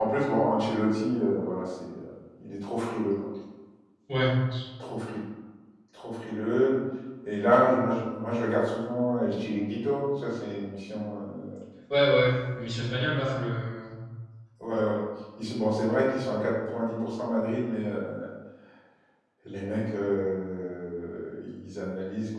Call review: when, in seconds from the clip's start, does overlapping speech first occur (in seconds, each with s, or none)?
none